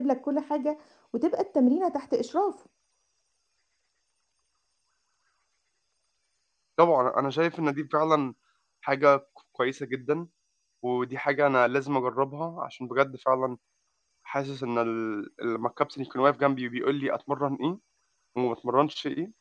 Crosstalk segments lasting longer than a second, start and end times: none

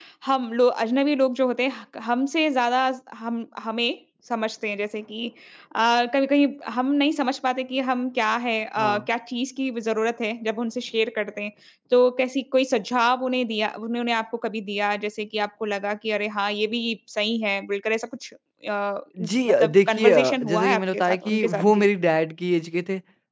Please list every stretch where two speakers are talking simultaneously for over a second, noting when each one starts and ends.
19.2-21.9

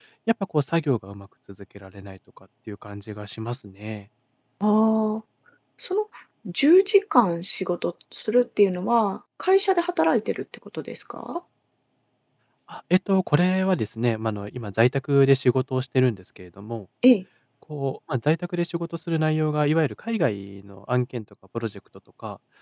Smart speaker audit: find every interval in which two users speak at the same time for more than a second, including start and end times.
none

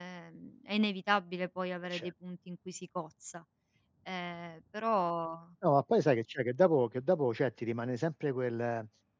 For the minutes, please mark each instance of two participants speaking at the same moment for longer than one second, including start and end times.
none

